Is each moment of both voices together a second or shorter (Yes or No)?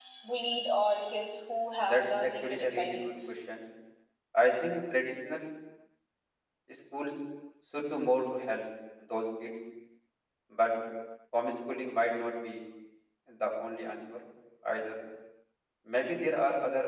No